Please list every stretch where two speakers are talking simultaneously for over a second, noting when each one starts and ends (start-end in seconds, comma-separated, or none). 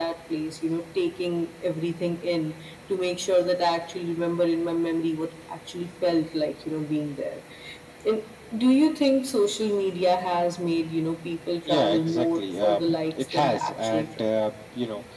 11.7-14.2